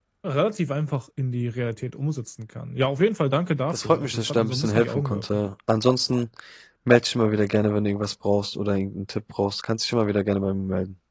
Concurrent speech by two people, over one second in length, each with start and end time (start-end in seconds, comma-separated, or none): 3.7-5.2